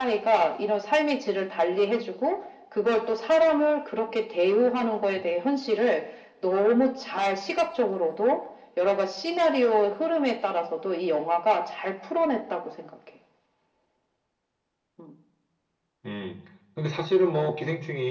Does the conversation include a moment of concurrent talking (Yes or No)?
No